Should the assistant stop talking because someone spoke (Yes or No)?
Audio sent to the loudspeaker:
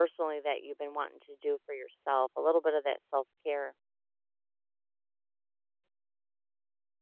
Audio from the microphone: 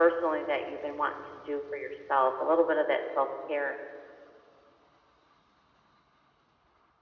No